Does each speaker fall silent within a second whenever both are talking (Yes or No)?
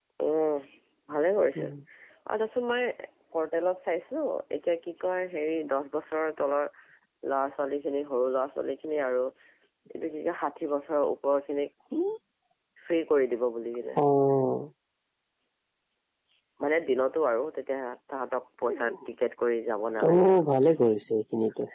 Yes